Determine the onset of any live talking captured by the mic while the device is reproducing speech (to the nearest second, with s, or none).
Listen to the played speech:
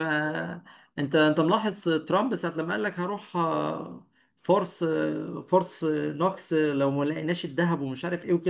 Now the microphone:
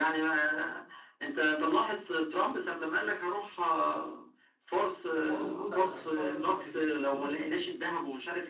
5 s